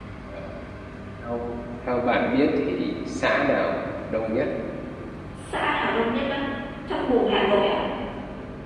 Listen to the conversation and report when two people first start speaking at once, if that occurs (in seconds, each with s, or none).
none